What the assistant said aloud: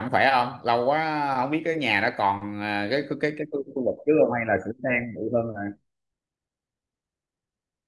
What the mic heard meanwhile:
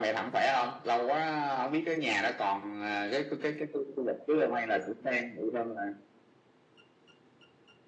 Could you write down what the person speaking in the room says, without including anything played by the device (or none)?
none